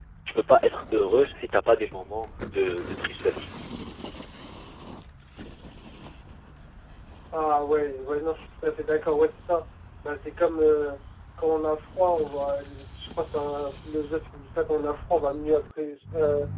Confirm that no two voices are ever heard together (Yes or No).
Yes